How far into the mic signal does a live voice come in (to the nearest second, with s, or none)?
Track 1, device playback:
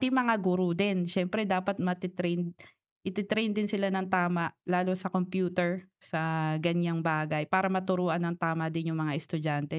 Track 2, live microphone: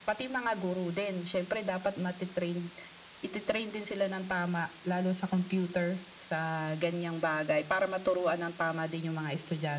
none